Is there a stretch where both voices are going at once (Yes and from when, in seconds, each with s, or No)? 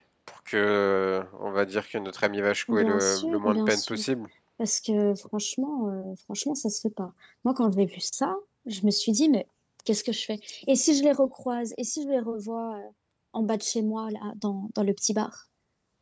Yes, from 2.7 s